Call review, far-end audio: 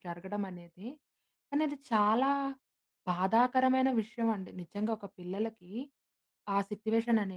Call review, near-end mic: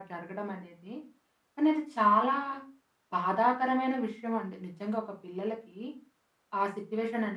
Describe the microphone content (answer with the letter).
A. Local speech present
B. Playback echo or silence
B